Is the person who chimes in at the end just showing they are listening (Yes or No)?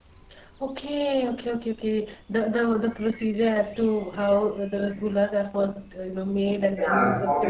No